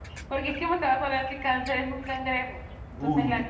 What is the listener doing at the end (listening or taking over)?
taking over